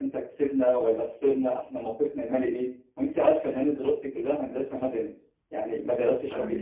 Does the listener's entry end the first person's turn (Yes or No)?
No